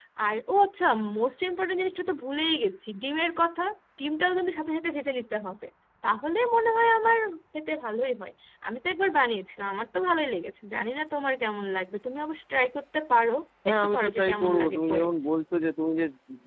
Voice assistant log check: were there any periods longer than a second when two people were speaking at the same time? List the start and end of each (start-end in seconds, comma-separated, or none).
13.7-15.1